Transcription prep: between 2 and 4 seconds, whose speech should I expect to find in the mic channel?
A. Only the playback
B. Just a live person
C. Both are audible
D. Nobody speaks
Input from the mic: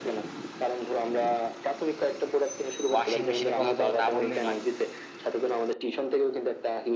C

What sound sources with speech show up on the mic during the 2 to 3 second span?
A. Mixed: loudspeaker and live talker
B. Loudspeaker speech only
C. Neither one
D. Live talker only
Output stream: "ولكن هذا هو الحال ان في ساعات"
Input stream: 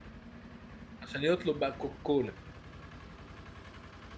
D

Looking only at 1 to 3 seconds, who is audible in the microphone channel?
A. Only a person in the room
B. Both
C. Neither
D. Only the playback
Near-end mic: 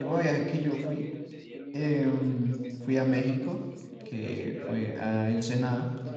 B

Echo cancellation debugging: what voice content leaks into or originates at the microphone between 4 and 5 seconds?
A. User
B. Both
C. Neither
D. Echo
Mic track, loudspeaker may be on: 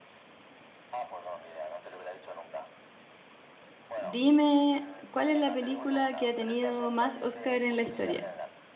B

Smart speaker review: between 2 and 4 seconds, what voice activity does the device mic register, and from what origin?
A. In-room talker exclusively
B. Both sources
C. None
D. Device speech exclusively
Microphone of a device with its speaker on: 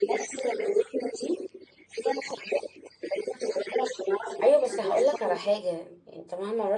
D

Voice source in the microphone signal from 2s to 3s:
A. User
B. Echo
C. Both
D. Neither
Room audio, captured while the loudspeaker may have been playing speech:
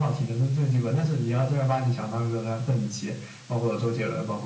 B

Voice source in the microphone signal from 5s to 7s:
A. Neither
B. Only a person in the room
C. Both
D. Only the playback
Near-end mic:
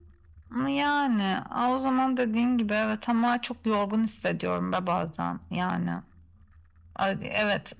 D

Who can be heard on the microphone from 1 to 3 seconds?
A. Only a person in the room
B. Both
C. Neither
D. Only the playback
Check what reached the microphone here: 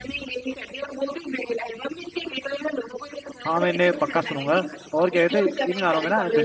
D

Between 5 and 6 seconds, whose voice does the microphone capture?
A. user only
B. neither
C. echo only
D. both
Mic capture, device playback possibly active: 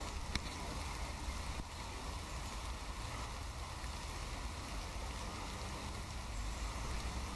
B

